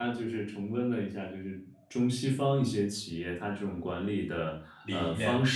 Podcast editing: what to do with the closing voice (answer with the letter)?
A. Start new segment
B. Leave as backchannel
B